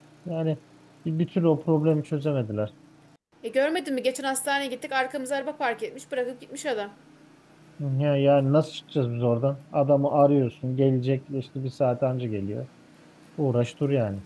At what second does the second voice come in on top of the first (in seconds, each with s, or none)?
none